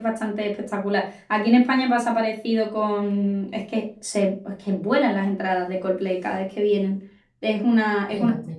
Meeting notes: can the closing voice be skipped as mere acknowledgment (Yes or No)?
Yes